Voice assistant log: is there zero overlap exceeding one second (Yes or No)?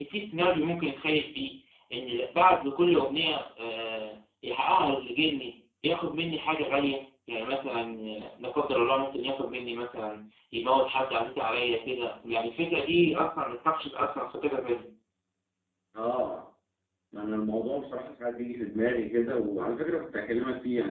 Yes